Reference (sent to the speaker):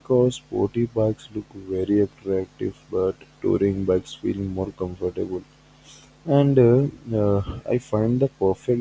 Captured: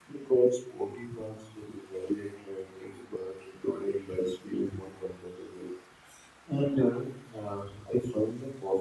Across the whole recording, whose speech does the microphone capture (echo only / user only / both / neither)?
echo only